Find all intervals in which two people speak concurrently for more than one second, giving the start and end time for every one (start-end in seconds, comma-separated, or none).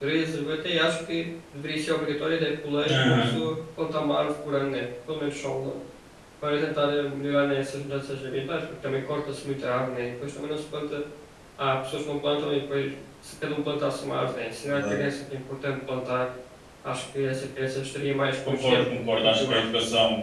18.4-19.6